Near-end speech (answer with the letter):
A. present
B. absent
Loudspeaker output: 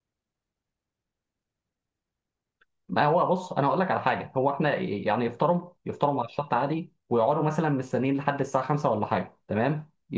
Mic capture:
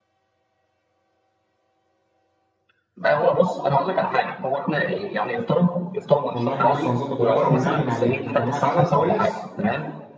A